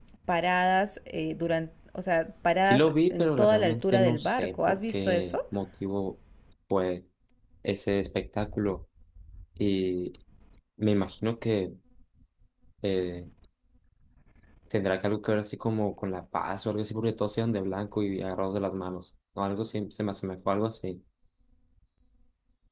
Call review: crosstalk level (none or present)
present